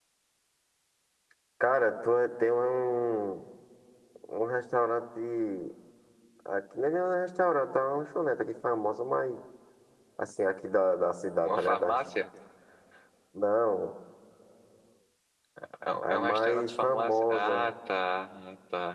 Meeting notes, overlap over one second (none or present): present